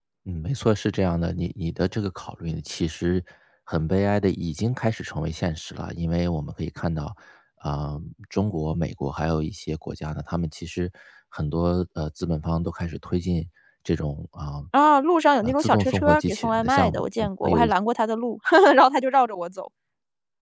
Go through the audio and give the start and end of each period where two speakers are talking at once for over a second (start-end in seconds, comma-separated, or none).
15.4-17.7